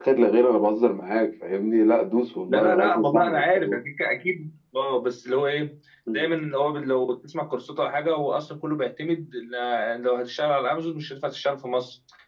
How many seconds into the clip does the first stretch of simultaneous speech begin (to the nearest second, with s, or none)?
2 s